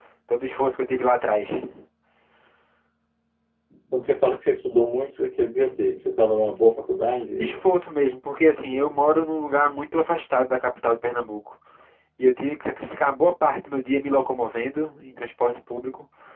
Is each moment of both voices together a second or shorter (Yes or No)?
Yes